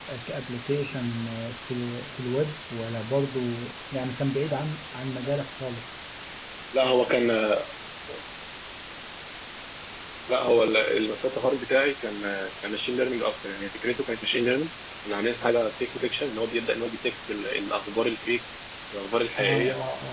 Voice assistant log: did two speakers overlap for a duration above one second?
No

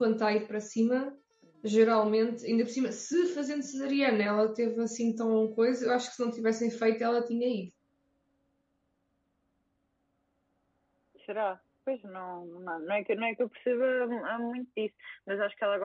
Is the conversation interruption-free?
Yes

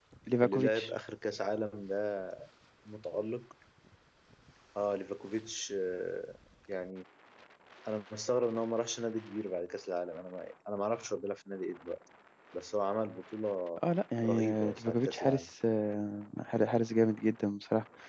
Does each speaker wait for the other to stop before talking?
No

